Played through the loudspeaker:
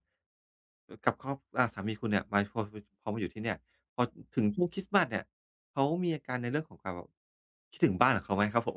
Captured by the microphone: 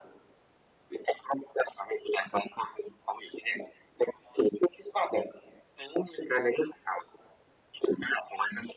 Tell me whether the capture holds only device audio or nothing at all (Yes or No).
Yes